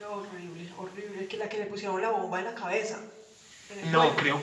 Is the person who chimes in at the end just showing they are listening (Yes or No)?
No